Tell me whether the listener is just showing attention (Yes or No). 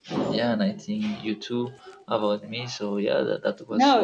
No